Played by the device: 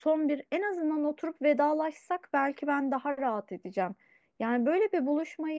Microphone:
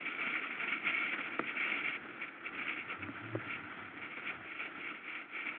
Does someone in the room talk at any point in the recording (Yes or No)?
No